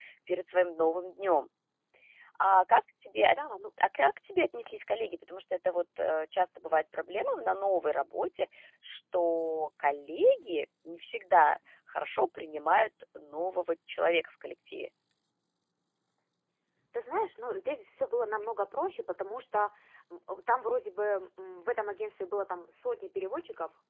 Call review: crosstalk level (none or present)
none